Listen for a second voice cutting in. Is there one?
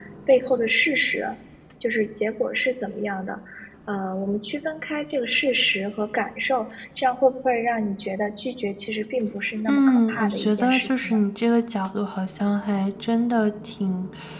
Yes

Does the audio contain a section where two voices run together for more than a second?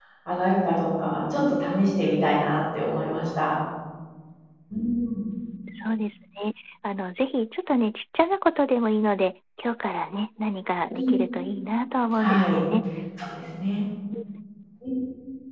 No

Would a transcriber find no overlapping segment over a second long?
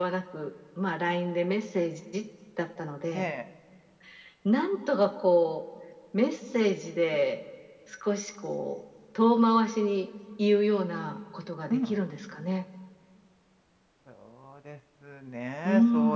Yes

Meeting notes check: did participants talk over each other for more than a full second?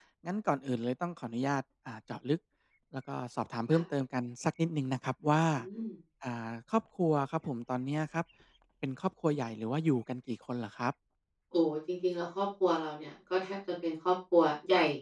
No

